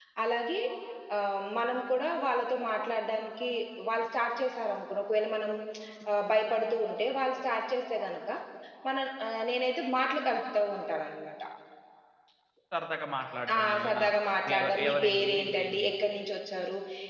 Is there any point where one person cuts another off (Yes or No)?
Yes